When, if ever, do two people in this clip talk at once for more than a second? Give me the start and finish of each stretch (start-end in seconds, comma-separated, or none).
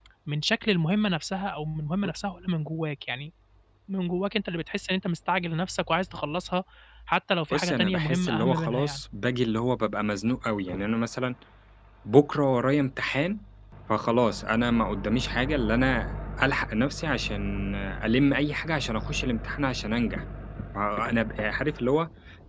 7.5-9.0